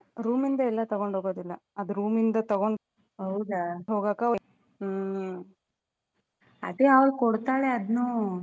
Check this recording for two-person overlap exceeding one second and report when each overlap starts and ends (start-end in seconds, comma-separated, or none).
none